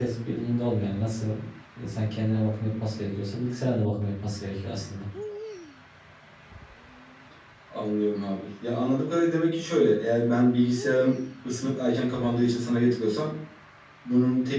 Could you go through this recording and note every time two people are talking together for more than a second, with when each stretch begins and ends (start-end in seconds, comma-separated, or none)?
none